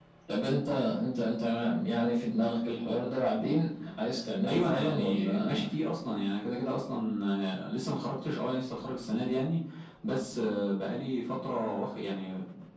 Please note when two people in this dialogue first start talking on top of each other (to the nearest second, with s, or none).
4 s